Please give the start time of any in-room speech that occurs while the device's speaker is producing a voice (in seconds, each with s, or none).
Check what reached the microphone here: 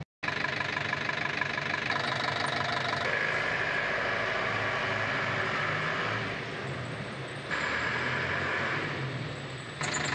none